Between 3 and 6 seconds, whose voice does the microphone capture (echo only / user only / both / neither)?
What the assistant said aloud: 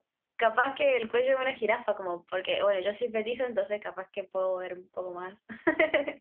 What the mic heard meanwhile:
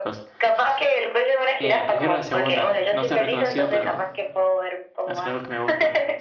both